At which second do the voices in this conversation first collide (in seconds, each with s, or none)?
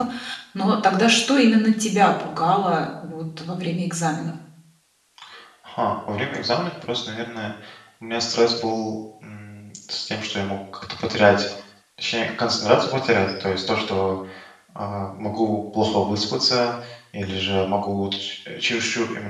none